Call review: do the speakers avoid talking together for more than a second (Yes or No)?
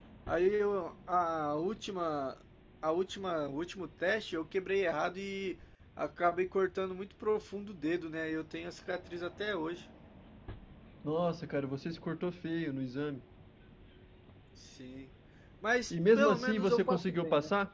No